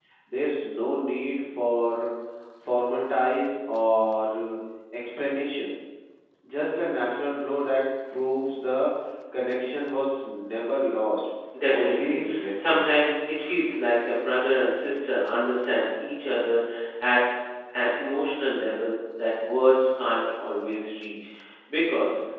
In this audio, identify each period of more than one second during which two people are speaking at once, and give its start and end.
11.7-12.9

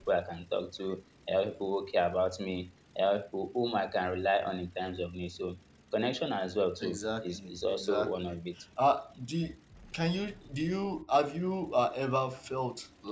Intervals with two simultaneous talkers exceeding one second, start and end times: 6.8-8.4

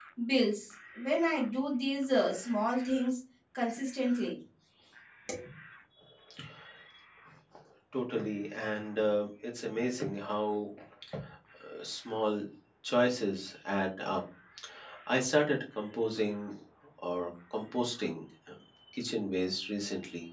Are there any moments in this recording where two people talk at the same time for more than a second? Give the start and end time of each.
none

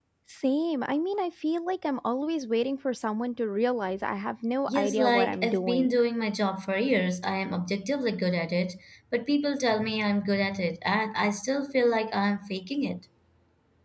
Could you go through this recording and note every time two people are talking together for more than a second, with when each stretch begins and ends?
4.7-6.0

